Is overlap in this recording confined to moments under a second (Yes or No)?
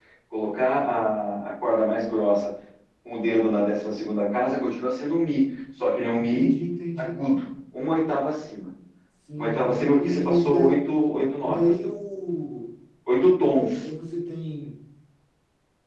No